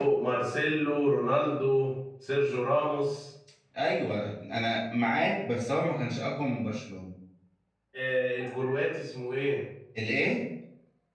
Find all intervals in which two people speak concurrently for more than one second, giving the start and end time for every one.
none

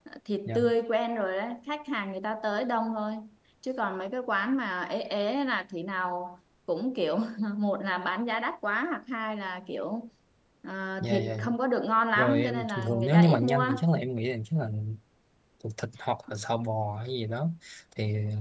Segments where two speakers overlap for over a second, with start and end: 12.2-13.7

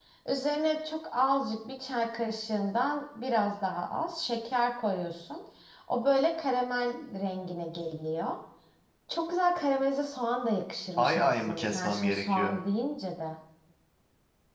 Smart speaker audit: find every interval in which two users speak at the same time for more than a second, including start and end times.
11.0-12.6

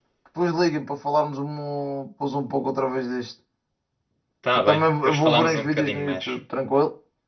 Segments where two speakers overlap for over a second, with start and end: 4.5-6.3

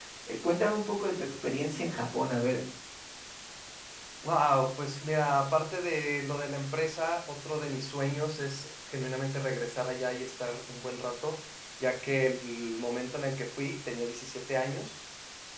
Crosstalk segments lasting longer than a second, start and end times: none

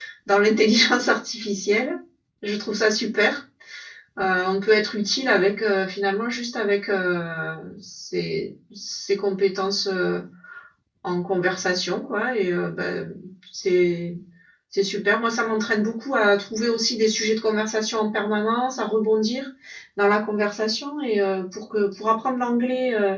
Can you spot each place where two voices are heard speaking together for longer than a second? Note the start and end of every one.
none

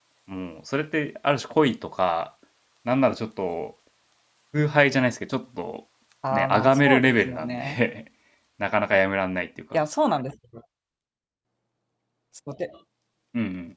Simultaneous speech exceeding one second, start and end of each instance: 6.3-7.8

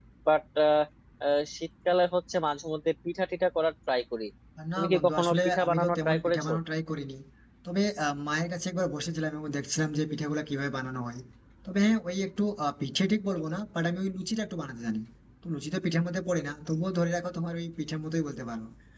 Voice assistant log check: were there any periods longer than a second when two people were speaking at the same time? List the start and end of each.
4.8-6.5

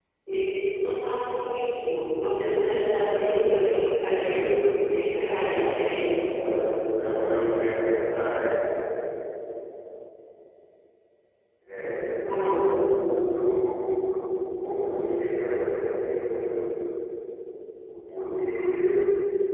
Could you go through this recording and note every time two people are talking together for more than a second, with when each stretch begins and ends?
4.9-6.5

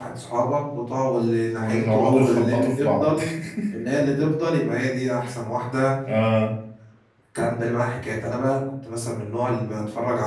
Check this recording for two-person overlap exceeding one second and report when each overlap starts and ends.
1.6-3.2

